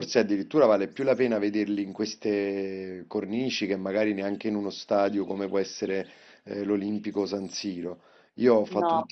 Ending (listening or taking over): listening